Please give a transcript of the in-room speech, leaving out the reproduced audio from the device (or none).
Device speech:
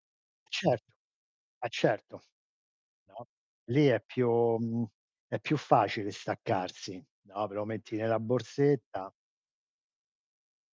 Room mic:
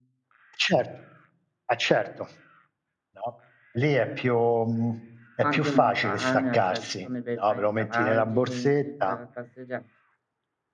O anche montagna, cioè, ci sono dei bei paesaggi, ti vai la passeggia